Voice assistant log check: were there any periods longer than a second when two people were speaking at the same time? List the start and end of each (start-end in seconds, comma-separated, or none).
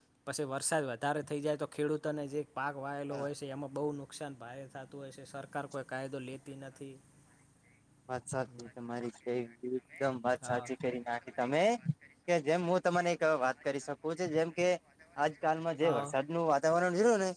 none